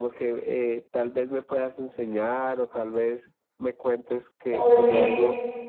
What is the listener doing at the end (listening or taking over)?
taking over